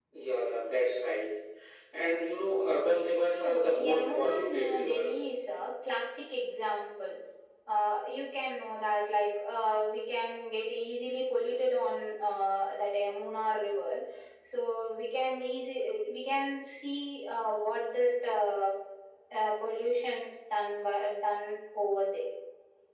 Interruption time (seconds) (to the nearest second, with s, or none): 3 s